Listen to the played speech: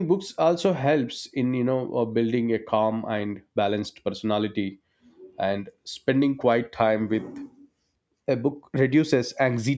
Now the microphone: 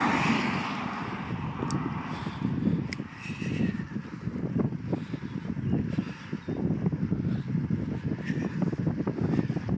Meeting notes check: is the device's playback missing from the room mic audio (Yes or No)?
Yes